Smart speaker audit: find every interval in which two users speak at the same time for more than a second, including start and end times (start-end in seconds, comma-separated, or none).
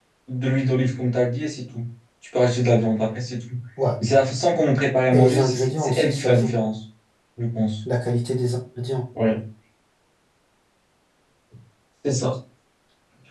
5.1-6.5